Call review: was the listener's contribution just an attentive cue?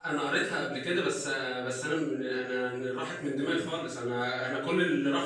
Yes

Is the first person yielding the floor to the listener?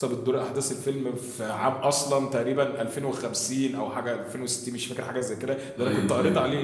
No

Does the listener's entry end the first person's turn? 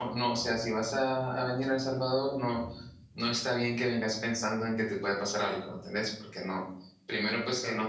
No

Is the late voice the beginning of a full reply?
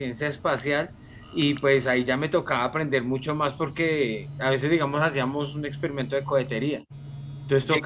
No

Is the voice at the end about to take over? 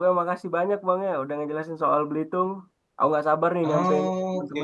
Yes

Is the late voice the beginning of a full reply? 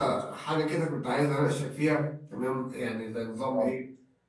No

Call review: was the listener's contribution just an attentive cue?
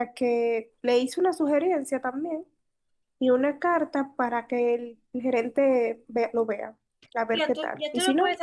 No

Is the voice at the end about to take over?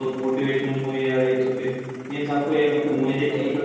No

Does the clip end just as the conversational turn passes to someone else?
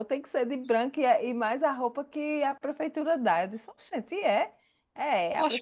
Yes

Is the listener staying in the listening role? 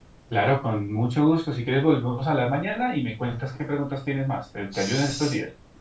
No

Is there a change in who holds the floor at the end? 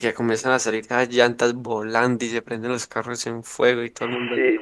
Yes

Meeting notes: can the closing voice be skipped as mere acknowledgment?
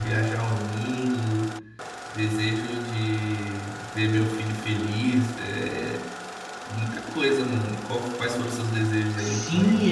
No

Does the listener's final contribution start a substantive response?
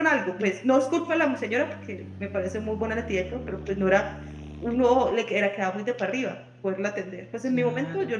No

